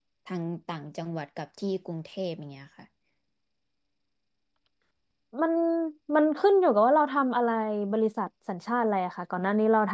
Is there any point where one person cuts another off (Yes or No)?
No